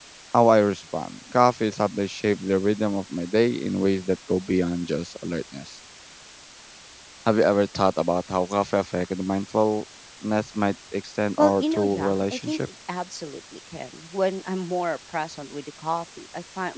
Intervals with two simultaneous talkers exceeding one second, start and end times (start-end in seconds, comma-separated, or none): 11.4-12.6